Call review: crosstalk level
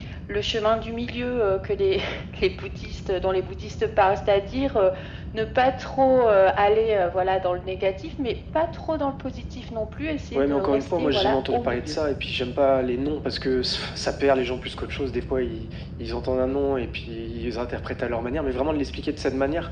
present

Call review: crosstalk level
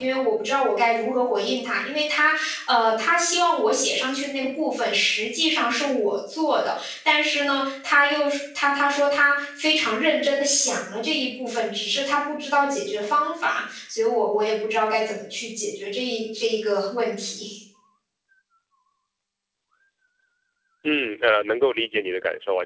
none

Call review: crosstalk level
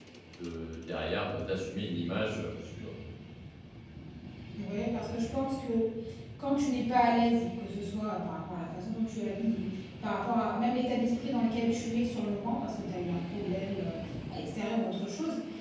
none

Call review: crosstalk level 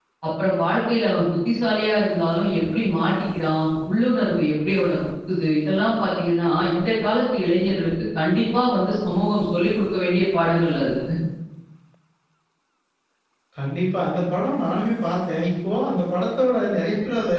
none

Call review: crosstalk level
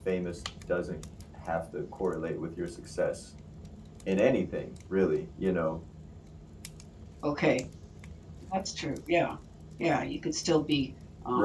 none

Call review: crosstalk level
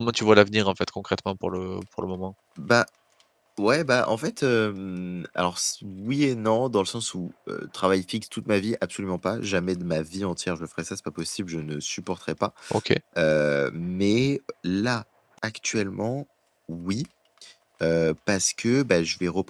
none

